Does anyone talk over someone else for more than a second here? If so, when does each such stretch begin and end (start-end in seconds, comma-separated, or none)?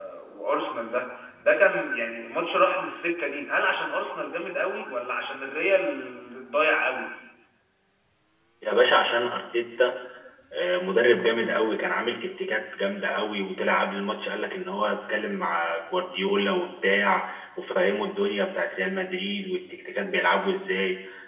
none